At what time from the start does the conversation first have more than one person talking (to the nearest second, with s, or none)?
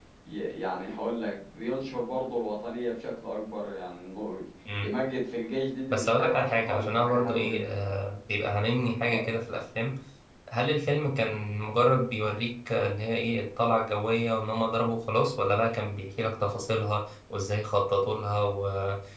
6 s